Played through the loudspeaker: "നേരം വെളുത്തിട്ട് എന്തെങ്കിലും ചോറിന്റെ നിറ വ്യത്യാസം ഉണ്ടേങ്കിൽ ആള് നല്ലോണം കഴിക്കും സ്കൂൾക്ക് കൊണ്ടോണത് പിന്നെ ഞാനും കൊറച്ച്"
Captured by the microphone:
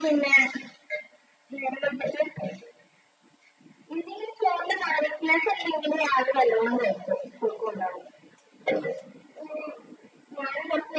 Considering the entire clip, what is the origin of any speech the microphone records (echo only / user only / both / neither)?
echo only